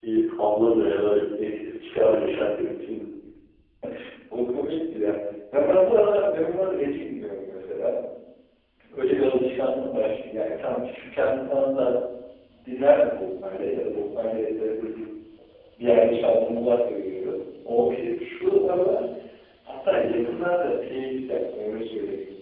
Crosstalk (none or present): none